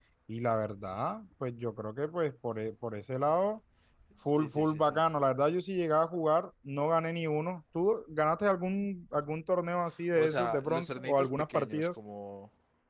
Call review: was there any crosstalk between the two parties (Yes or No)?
Yes